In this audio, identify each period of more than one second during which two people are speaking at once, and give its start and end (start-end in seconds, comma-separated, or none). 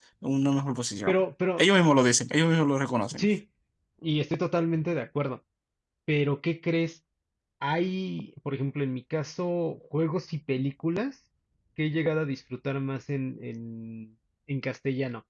none